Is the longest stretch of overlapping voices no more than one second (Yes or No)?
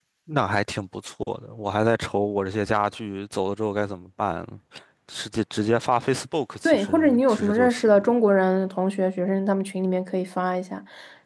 No